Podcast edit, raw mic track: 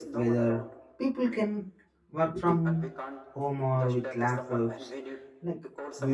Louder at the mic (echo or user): user